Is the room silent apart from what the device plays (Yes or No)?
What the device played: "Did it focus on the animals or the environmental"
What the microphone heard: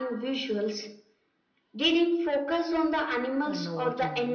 No